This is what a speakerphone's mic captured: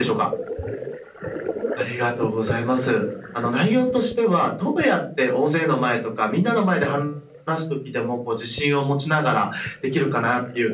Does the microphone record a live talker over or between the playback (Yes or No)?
No